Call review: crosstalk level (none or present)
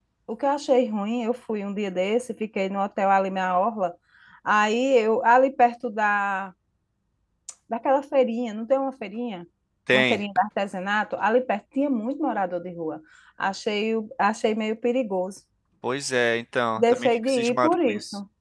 present